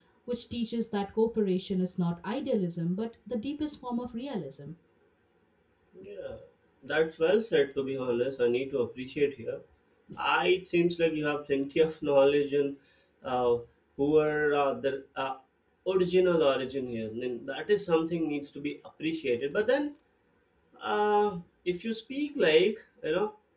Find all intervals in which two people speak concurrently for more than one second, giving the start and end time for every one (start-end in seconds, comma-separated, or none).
none